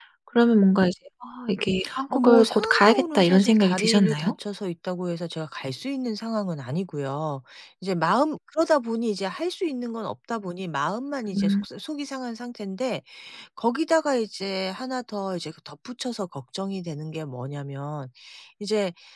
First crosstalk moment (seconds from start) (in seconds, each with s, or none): 2.1 s